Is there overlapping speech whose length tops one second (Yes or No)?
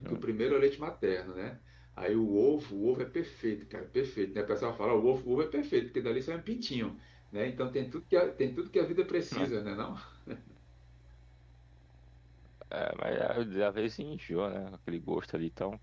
No